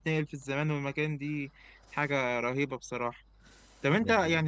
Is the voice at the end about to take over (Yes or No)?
No